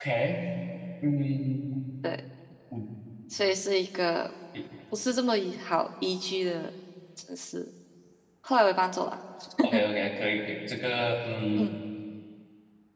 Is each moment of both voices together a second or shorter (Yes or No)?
Yes